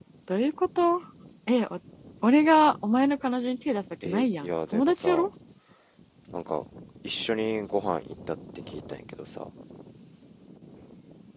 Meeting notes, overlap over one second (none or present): present